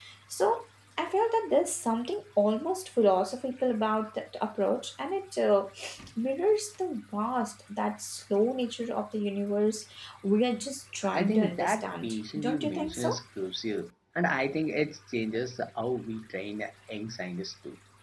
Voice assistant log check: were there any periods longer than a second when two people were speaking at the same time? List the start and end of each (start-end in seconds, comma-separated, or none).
11.1-13.2